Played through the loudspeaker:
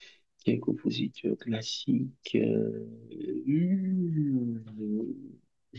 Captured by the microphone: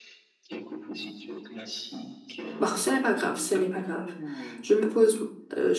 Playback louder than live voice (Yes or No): No